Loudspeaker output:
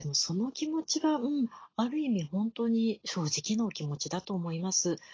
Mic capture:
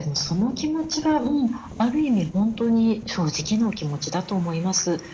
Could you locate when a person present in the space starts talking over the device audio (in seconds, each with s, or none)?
none